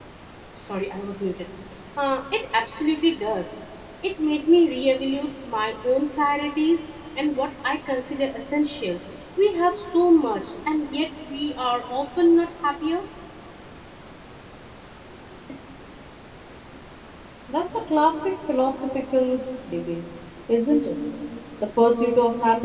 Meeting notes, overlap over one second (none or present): none